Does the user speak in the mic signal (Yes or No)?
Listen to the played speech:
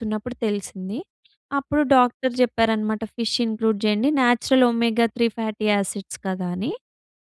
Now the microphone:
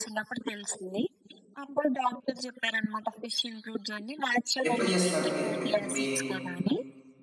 Yes